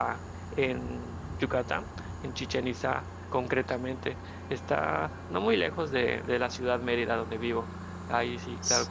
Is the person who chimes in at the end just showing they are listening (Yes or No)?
Yes